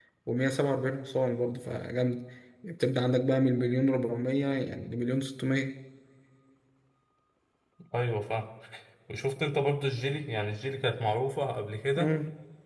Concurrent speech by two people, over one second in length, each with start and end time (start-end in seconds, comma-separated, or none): none